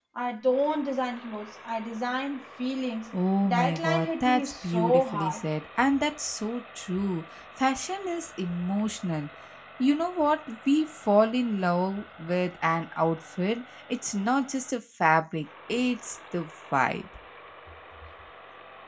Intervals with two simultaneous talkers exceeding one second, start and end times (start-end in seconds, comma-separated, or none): 3.4-5.4